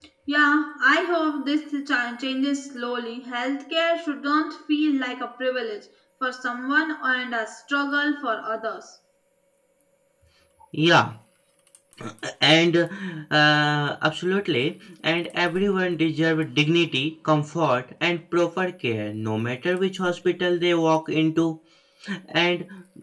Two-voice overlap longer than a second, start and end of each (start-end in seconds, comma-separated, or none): none